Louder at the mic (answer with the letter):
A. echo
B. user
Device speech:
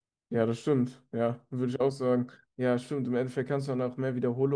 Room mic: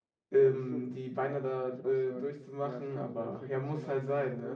B